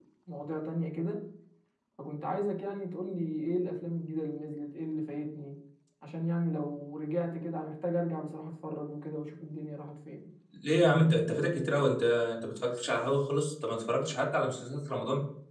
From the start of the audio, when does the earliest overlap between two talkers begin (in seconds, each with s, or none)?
none